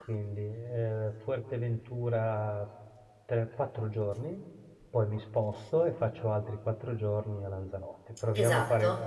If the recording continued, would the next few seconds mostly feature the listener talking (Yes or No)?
Yes